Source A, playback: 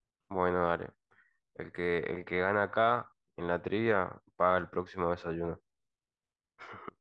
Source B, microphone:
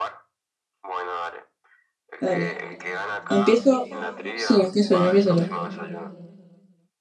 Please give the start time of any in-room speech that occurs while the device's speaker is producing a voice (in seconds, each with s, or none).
2.2 s